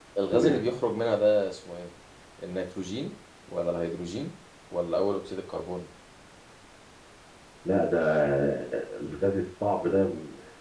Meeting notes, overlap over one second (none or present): none